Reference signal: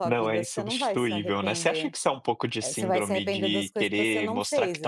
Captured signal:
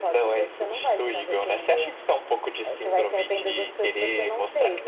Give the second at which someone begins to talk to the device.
none

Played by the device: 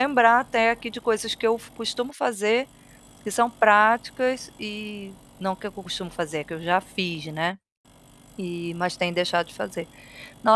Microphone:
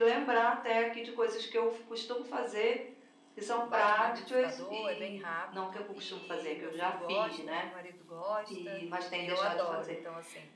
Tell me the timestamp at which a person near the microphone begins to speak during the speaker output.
3.6 s

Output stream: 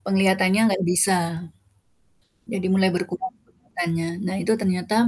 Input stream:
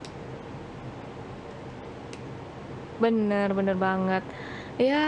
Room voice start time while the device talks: 3.0 s

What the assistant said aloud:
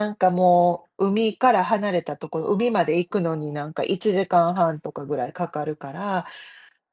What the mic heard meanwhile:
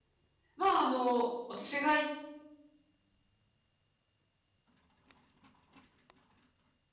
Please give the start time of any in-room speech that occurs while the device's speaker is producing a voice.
0.6 s

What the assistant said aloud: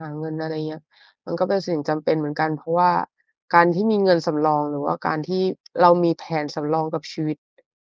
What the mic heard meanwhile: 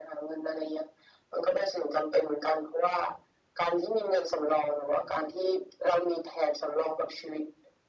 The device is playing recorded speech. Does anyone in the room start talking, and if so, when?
none

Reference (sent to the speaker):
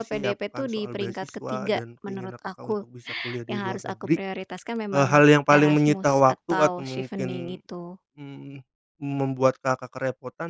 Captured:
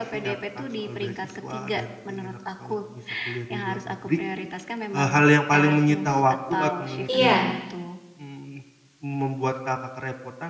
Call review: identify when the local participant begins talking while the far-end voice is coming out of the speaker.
7.1 s

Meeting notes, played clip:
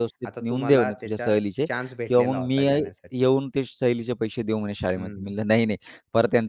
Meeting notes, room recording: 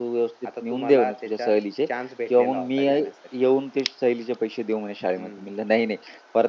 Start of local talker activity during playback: none

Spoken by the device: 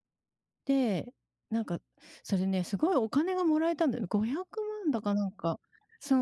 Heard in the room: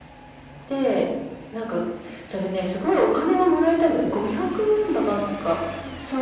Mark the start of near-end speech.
none

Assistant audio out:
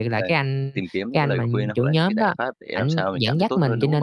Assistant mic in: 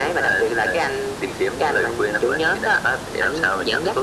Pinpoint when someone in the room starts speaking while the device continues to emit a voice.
none

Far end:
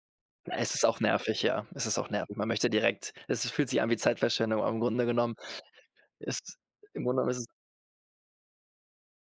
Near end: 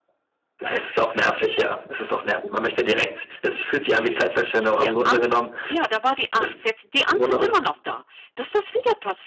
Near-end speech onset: 3.9 s

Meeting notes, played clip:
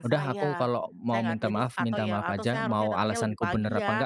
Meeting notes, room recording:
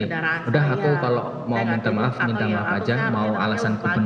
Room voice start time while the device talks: none

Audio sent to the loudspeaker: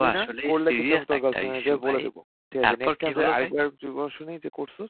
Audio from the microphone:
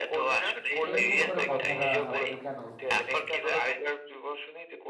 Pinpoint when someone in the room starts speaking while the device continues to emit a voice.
0.9 s

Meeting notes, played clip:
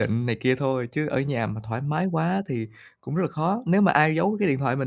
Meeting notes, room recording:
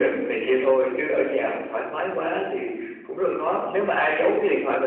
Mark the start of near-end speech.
none

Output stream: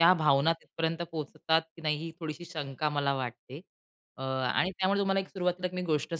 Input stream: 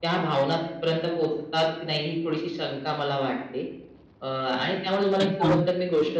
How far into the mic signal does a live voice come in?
5.2 s

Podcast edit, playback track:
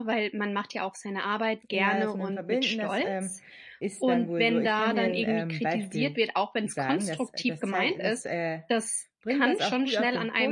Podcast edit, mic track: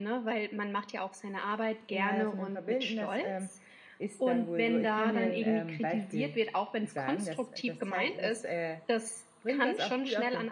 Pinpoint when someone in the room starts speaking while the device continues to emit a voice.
none

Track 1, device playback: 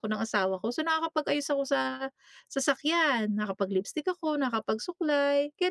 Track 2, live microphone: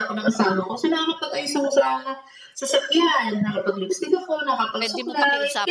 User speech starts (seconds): 4.8 s

